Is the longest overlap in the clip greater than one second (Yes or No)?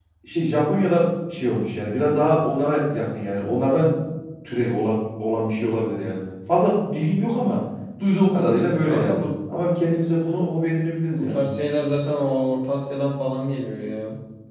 No